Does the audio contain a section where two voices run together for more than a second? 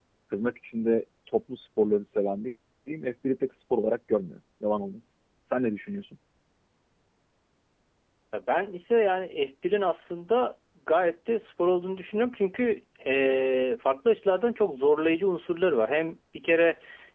No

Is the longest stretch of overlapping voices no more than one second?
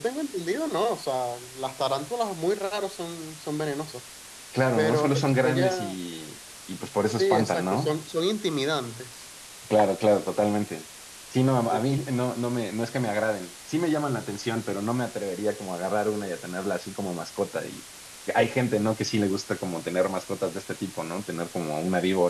No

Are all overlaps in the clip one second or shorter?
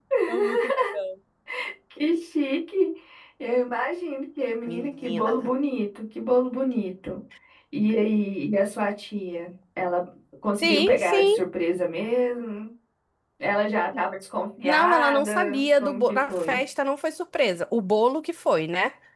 No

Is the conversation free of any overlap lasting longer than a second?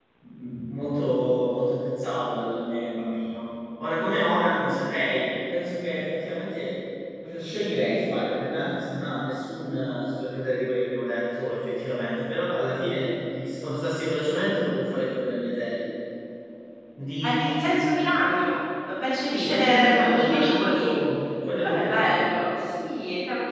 No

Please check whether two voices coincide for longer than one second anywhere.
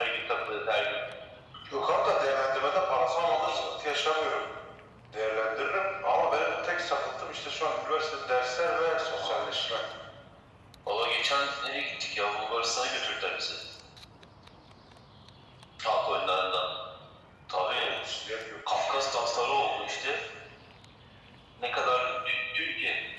Yes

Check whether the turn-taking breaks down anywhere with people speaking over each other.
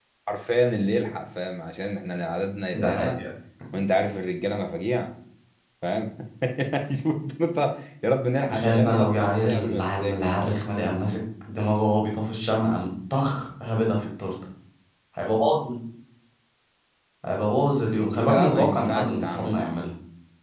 Yes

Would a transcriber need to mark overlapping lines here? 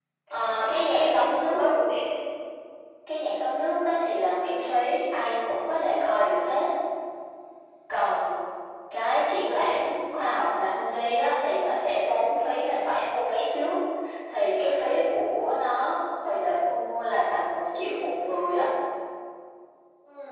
Yes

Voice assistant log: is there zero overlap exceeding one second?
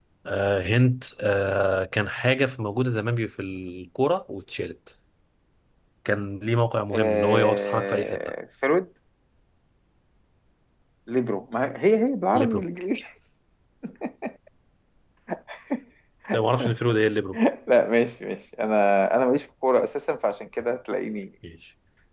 No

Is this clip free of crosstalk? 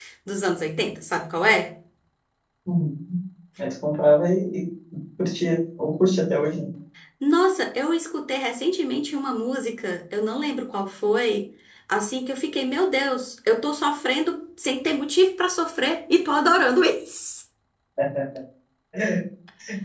Yes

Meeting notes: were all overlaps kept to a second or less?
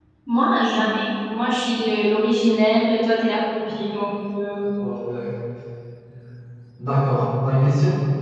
Yes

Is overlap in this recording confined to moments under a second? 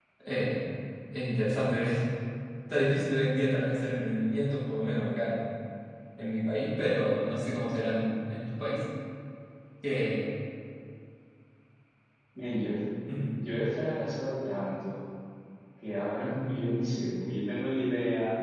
Yes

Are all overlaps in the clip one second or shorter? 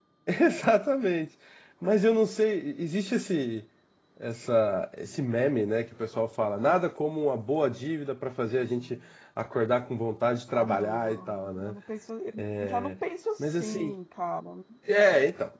No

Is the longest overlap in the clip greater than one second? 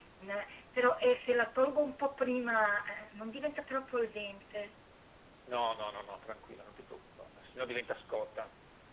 No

